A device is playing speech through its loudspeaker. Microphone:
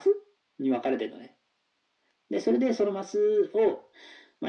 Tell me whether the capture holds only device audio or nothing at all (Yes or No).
Yes